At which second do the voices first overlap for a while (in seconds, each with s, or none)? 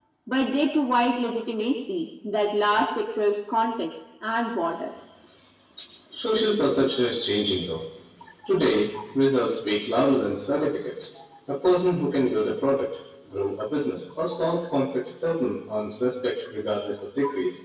none